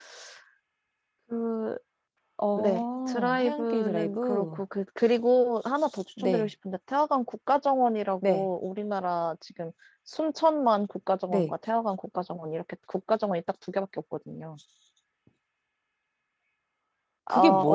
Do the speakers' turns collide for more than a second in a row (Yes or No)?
Yes